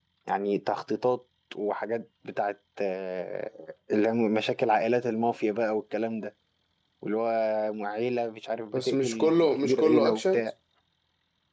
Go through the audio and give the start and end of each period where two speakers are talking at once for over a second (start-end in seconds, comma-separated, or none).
8.7-10.4